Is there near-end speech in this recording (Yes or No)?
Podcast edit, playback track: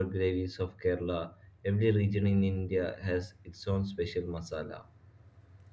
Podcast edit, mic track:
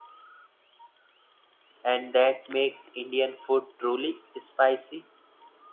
Yes